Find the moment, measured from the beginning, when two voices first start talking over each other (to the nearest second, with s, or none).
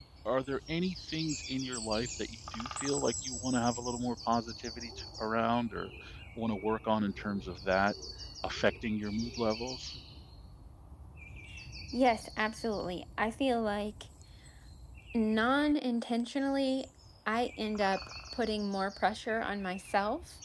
none